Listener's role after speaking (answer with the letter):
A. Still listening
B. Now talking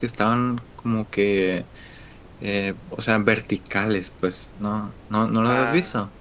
B